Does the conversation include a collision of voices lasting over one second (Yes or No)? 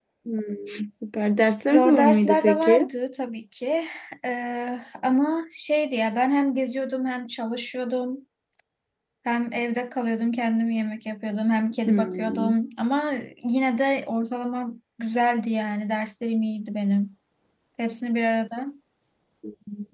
Yes